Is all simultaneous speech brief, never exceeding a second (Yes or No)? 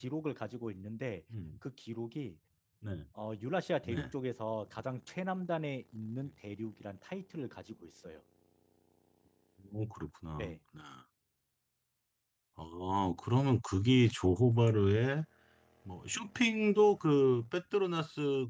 Yes